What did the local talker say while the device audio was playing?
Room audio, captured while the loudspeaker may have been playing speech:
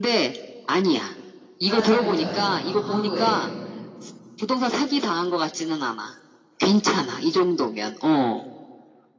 바닷가 근처에, 어, 항구에.

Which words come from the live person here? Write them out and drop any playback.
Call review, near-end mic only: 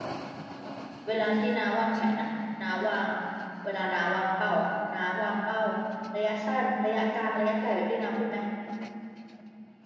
เวลาที่น้าวางแผนอะน้าวางเวลาน้าวางเป้าอะน้าวางเป้าระยะสั้นระยะกลางระยะไกลแบบที่น้าพูดไหม

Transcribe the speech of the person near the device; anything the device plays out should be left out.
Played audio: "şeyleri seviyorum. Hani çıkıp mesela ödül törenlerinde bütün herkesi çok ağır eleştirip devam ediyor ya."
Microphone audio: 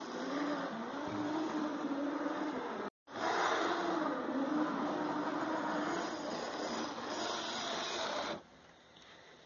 none

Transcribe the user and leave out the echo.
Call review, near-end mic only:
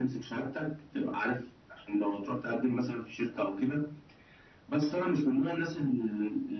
none

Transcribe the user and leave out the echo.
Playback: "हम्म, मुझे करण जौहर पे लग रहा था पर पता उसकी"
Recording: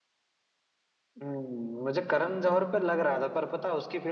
none

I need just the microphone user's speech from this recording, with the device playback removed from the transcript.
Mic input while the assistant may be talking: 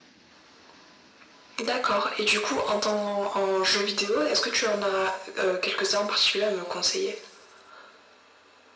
none

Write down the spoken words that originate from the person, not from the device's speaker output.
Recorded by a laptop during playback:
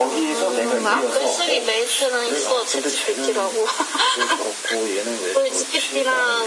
그런가?

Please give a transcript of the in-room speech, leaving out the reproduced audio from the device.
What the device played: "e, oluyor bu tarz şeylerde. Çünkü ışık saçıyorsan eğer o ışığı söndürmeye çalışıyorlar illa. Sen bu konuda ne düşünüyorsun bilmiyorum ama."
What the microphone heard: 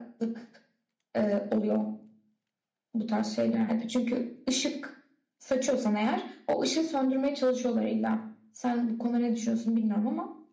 none

